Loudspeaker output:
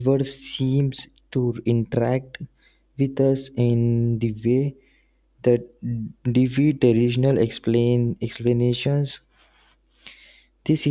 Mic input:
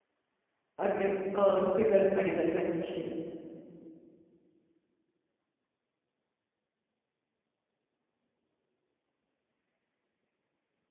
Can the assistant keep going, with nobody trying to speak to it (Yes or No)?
No